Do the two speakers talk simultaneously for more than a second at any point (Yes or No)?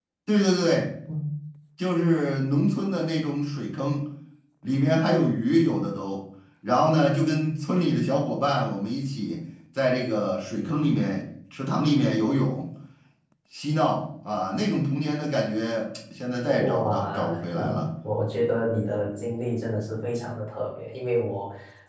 Yes